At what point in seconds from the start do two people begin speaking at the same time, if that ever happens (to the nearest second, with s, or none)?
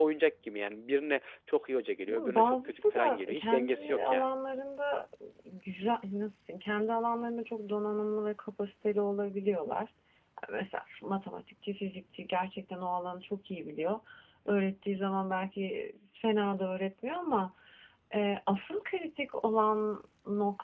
2 s